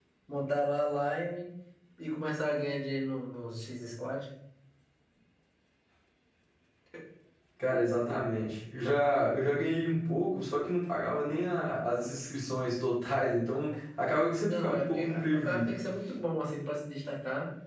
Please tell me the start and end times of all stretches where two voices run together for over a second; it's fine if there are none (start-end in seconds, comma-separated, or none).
14.4-15.7